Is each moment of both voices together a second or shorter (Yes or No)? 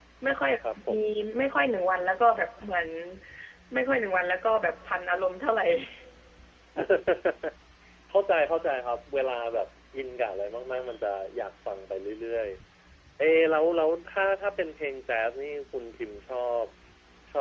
Yes